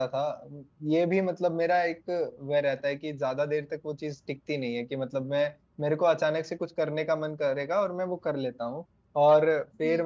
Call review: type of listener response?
listening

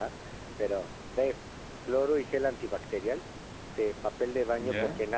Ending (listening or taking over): listening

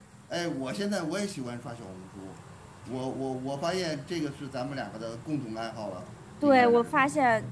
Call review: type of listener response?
taking over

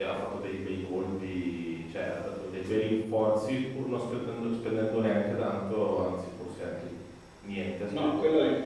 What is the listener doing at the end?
taking over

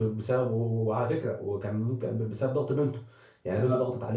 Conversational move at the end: listening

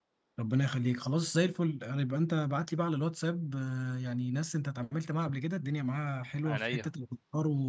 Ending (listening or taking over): listening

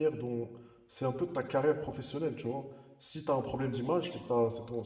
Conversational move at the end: listening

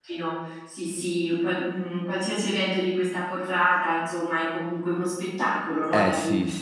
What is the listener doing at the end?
taking over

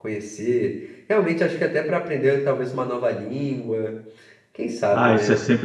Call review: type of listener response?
taking over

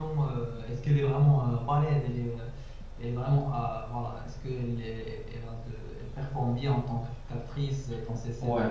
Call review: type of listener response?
taking over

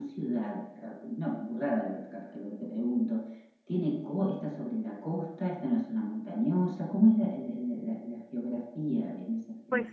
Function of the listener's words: taking over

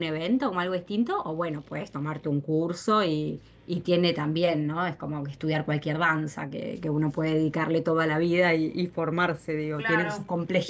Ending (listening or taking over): taking over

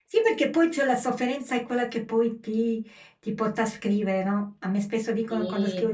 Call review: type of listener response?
listening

